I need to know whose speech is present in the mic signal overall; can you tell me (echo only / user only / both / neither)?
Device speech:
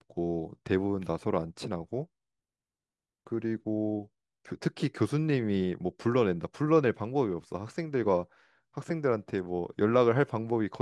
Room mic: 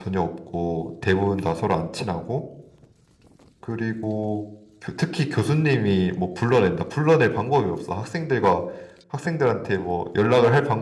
echo only